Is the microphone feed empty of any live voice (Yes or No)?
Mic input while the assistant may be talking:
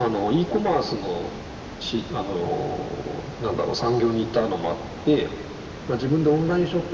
Yes